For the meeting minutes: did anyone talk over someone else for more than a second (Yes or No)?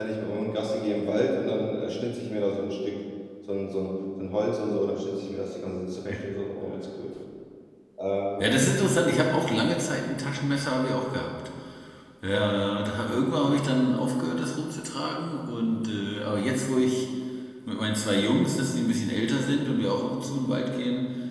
No